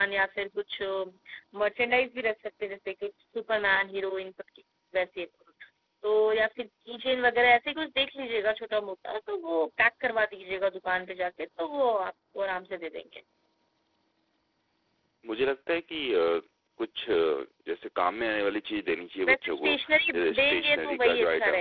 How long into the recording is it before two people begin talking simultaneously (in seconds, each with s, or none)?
19.3 s